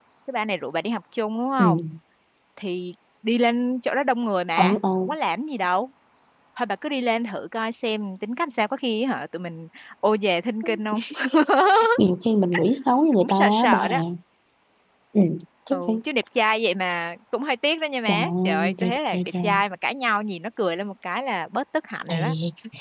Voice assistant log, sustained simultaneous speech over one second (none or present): present